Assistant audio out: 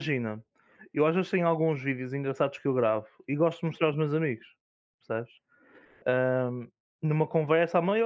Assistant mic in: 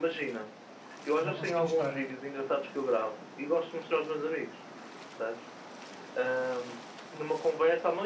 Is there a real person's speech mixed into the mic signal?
Yes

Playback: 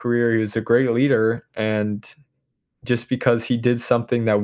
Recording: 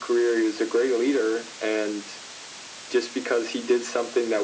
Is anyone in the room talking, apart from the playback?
No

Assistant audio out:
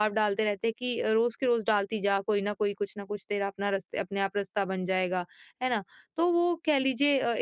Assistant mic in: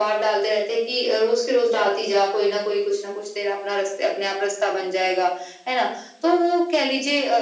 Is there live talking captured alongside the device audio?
No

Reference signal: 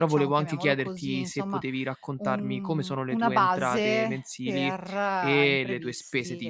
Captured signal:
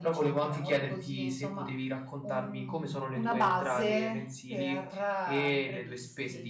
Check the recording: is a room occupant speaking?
No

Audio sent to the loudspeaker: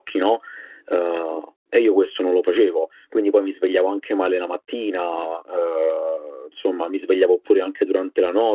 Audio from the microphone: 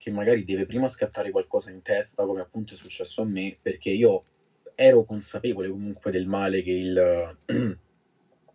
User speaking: Yes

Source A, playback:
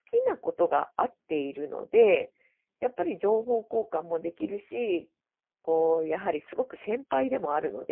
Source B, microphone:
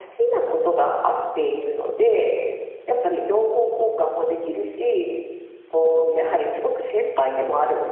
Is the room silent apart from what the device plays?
Yes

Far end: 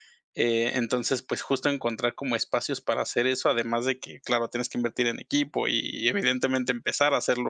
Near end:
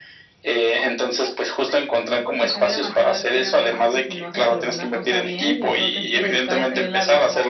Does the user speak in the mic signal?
Yes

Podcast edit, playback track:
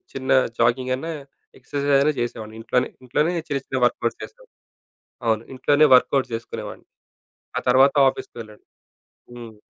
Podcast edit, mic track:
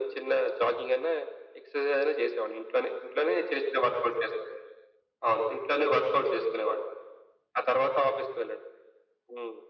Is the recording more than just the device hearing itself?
No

